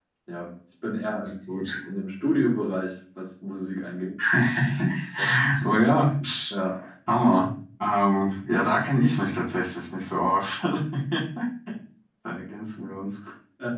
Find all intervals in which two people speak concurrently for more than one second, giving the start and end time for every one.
none

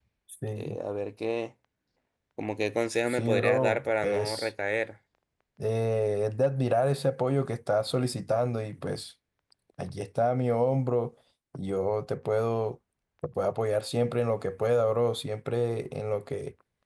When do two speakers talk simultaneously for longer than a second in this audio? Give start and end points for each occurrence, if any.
3.1-4.5

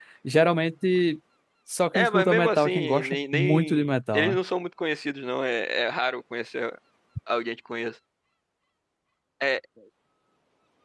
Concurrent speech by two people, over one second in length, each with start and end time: 1.9-4.4

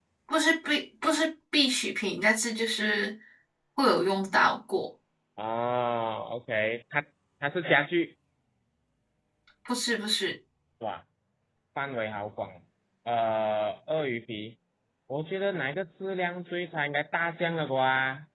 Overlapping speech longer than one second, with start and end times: none

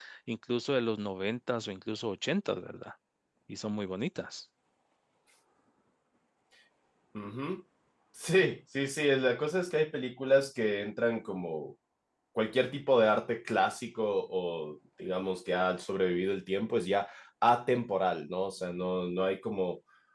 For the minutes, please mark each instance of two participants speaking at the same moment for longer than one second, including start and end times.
none

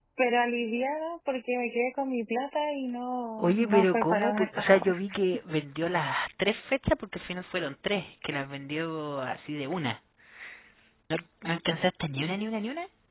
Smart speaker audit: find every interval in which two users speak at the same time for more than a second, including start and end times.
3.4-5.0

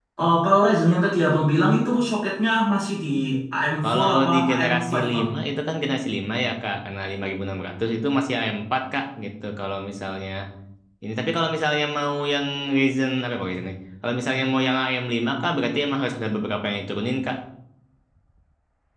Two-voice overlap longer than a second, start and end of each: 3.8-5.2

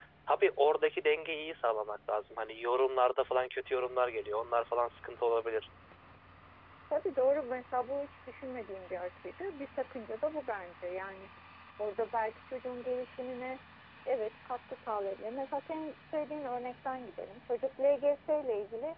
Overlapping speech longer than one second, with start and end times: none

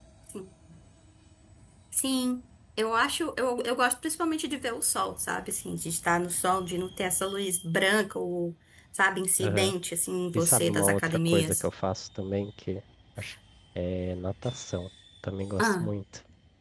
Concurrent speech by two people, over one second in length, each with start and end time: 10.3-11.7

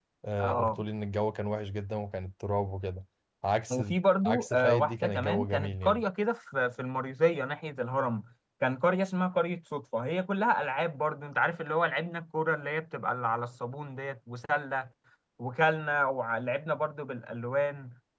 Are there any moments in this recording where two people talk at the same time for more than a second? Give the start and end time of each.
4.2-6.0

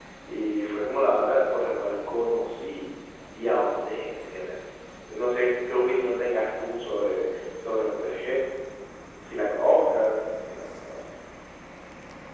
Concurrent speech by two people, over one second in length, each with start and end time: none

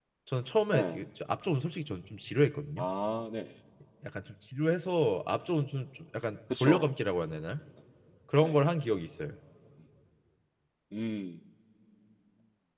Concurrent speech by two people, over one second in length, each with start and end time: none

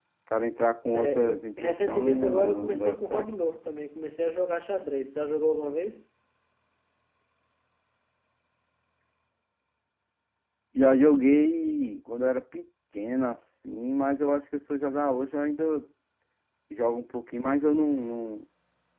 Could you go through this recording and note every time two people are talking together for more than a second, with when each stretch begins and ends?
0.9-3.3

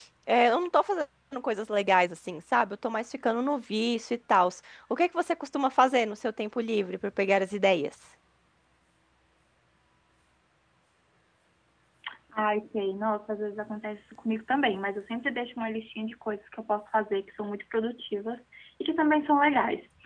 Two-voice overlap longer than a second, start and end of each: none

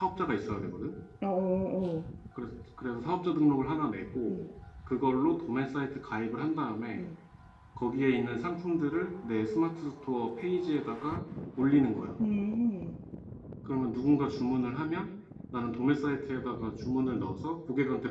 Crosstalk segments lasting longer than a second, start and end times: none

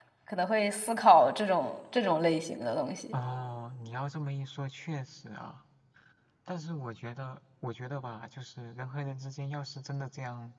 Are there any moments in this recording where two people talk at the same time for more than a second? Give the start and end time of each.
none

